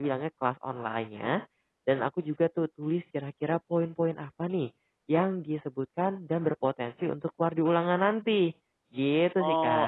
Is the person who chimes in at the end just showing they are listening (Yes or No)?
No